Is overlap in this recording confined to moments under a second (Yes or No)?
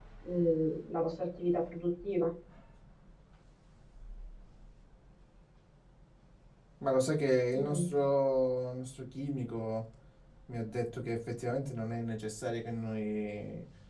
Yes